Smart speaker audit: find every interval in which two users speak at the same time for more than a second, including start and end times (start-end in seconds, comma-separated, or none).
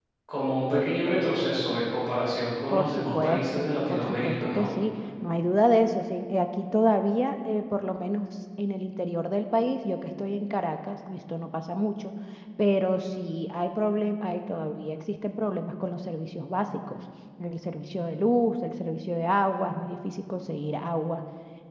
2.7-4.7